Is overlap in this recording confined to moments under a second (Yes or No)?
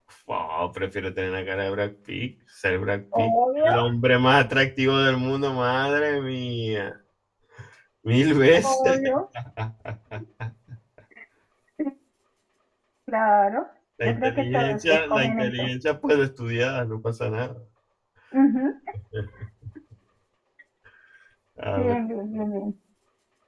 No